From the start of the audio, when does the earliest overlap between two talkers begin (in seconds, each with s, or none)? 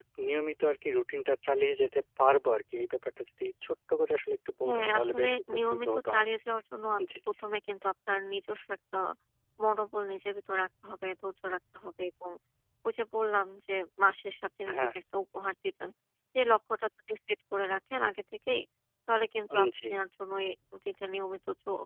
4.7 s